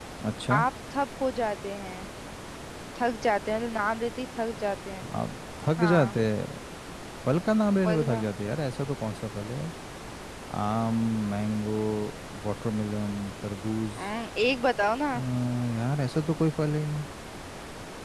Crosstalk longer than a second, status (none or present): none